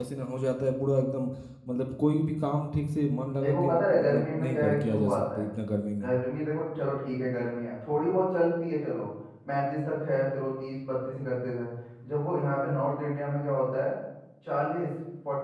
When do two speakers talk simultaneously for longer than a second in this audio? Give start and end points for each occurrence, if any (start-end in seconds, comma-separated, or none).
3.4-5.5